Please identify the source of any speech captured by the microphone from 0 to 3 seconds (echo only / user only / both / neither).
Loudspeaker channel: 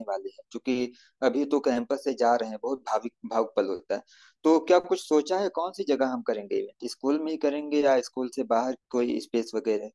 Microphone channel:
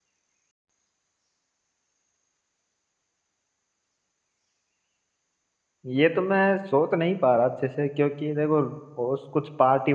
neither